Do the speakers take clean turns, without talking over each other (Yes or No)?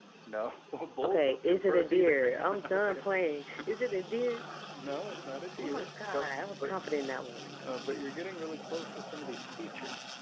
No